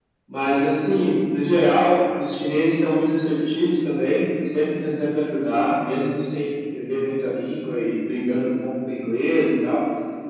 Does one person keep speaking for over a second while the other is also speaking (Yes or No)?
No